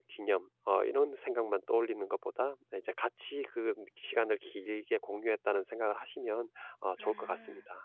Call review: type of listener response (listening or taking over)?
taking over